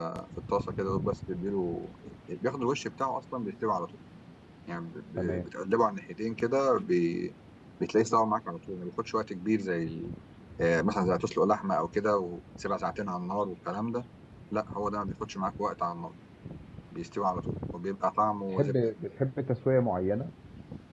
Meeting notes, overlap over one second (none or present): none